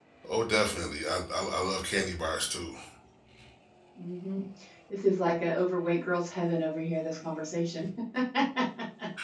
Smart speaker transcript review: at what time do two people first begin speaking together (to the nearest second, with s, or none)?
none